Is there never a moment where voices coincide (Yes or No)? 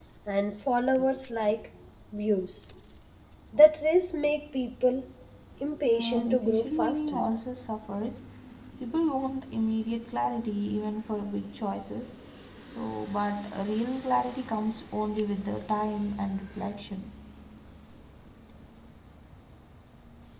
No